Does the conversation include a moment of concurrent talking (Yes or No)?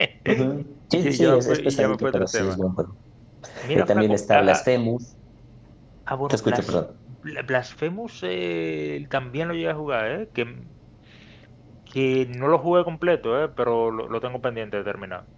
Yes